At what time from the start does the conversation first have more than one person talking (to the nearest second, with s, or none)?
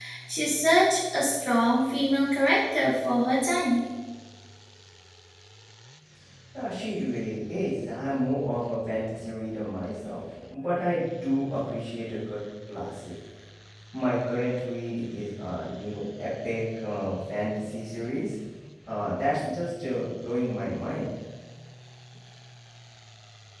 none